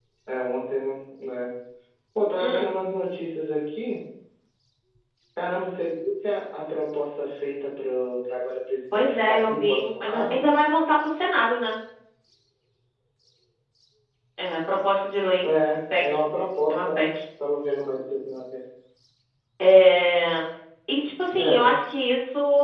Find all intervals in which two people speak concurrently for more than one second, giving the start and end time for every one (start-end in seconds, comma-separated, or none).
8.9-10.4